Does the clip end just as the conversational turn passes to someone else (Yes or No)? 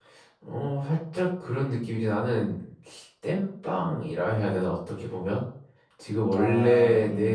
No